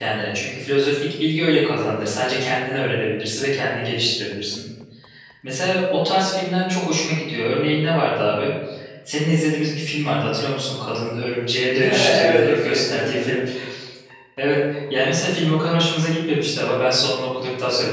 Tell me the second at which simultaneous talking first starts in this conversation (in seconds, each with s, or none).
11.7 s